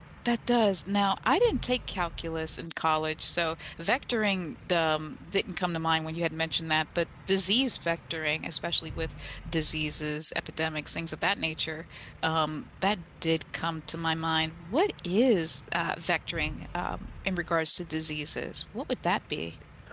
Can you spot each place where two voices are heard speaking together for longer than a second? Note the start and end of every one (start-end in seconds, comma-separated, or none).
none